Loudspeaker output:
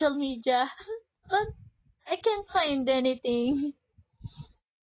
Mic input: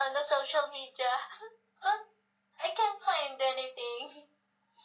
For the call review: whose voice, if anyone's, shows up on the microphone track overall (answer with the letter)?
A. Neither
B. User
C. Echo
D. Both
C